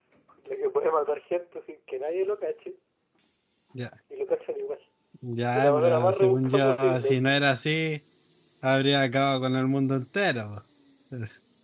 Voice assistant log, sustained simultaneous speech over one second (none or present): present